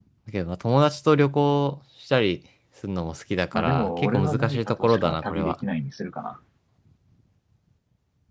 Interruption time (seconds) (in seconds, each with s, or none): 3.5 s